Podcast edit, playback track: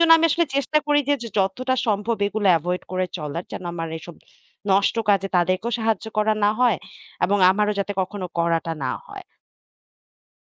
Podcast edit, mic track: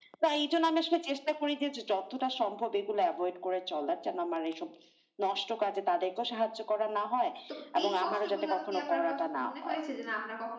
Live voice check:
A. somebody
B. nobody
A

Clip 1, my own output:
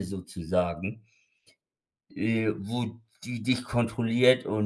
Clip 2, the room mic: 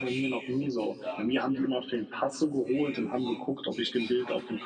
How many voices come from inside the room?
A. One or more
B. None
A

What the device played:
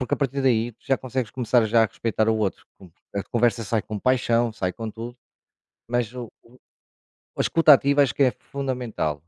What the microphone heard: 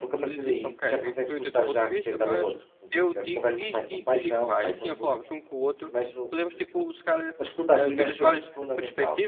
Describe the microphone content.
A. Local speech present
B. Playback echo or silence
A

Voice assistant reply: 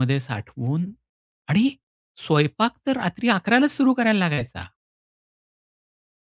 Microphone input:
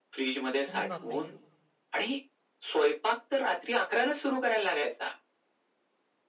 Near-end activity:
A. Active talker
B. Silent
A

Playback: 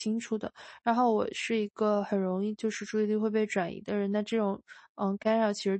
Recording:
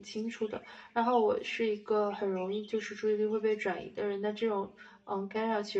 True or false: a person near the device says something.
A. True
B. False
B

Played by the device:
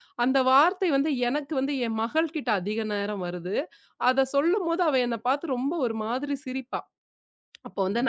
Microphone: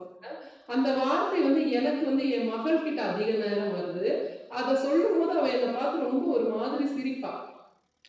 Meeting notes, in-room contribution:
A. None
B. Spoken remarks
A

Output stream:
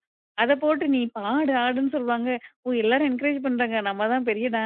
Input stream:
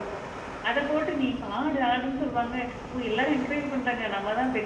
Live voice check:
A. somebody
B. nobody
B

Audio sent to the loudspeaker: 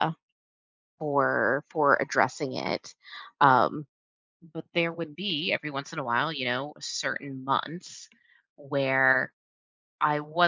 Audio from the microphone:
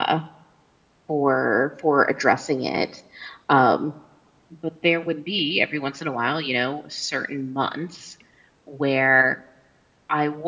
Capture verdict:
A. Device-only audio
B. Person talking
A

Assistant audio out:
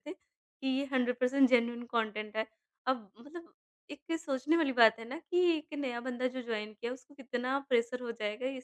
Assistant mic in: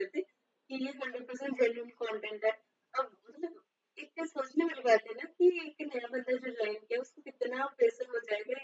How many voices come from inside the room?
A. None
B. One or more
A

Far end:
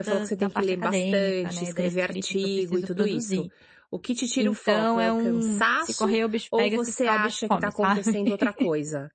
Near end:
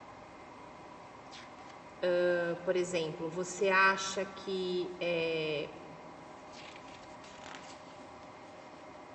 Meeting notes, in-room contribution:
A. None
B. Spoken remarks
B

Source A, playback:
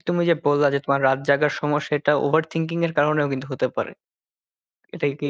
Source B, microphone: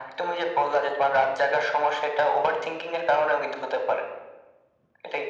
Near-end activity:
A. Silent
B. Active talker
A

